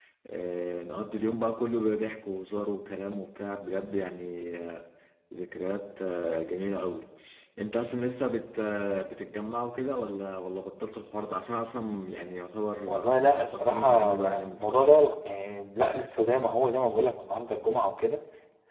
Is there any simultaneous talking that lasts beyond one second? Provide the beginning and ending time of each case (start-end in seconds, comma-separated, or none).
12.9-15.1